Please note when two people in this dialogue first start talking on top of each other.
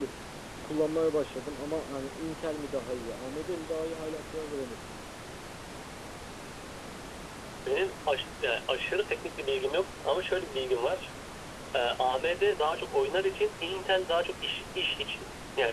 none

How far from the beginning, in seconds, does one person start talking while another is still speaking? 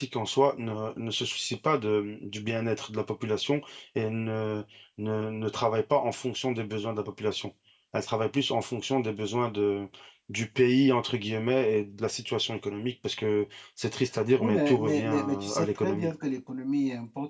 14.4 s

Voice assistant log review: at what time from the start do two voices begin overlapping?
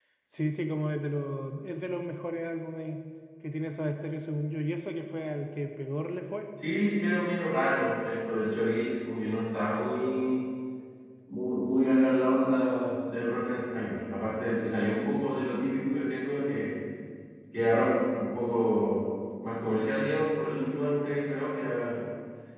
none

